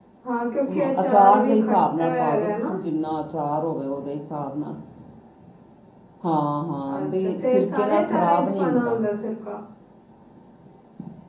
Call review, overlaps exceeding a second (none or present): present